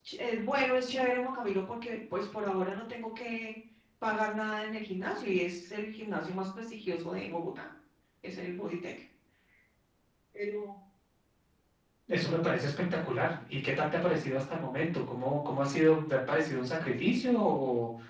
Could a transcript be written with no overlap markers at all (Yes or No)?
Yes